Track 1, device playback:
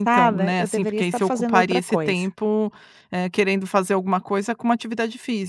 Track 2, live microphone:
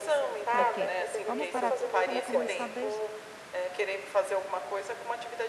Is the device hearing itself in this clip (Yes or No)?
Yes